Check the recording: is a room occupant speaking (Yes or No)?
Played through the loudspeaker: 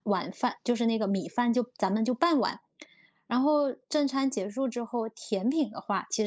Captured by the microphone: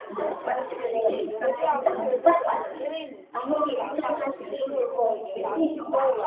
Yes